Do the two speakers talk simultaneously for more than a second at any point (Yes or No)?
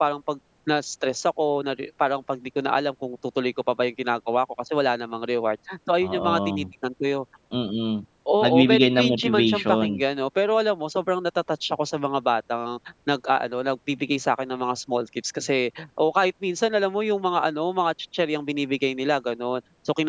Yes